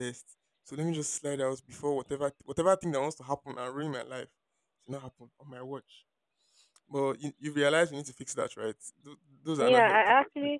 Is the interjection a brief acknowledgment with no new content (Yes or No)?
No